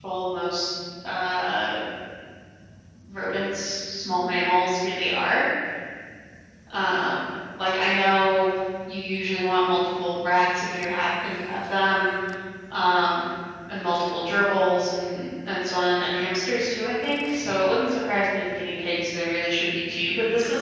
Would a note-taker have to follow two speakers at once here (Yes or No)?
No